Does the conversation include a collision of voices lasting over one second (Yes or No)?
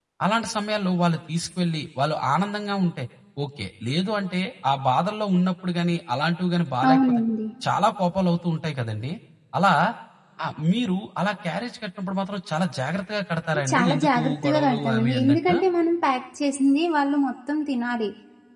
Yes